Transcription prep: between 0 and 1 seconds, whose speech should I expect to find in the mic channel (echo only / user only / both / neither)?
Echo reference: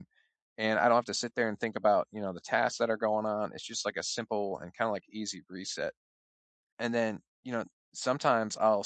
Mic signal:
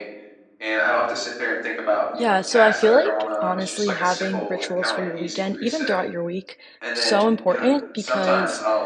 echo only